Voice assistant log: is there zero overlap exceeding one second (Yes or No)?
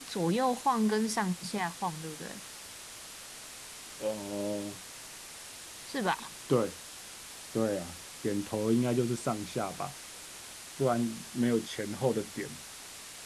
Yes